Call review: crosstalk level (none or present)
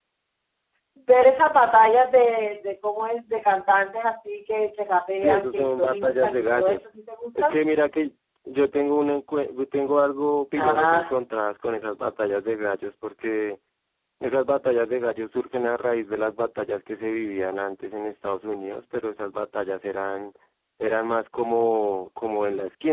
present